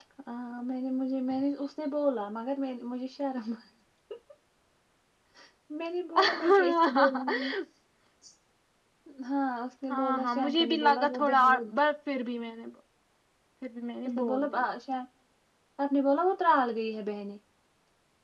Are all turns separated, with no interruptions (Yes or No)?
No